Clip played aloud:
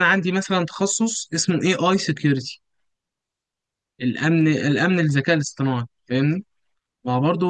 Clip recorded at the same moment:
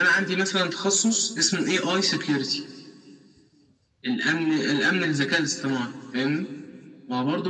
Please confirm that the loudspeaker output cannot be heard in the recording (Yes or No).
No